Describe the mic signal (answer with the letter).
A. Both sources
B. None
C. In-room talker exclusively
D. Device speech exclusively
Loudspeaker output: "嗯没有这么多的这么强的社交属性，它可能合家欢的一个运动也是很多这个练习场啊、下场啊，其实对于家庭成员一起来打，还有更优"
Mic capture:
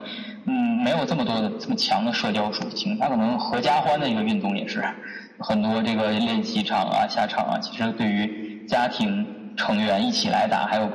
A